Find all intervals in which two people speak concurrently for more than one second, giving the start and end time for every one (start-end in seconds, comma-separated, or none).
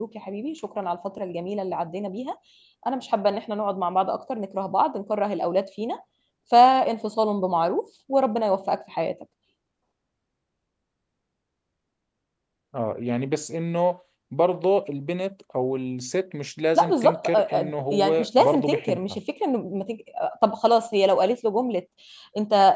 16.8-19.2